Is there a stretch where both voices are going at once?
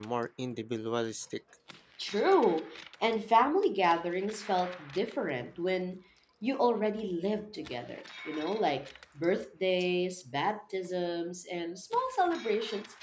No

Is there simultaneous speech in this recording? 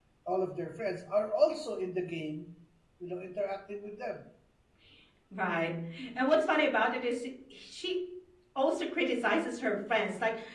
No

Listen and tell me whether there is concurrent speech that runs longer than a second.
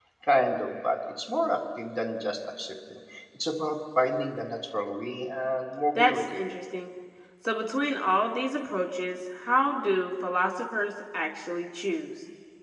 No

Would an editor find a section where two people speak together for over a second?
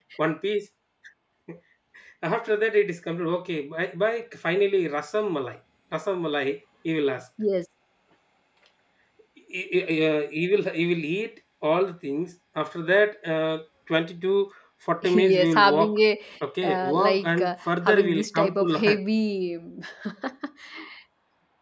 Yes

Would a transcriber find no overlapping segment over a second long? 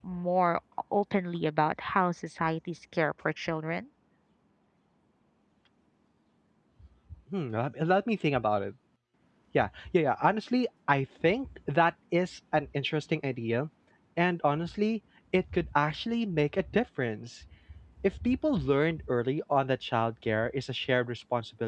Yes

